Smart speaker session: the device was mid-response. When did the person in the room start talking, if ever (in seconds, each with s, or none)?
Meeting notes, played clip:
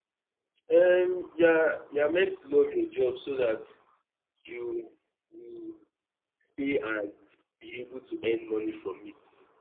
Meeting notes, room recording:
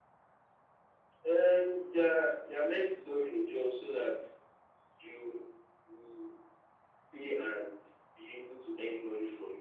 none